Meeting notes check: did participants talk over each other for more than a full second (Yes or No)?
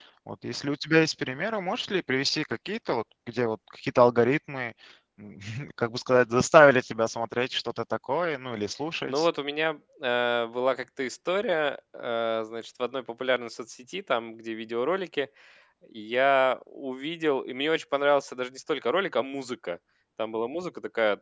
No